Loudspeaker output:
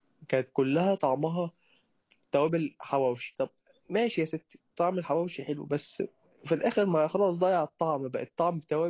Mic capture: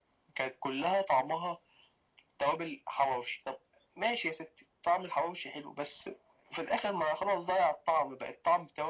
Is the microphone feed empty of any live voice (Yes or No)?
Yes